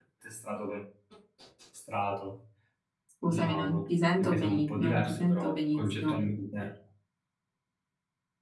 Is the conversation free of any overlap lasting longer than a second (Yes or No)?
No